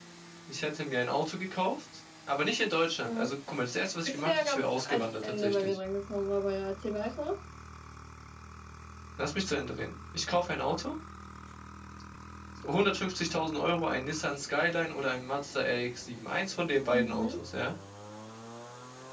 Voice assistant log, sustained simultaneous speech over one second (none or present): present